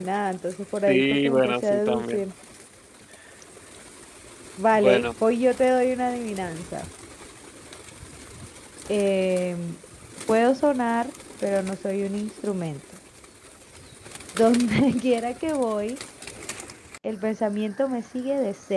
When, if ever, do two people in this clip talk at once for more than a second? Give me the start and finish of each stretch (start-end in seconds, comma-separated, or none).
0.9-2.2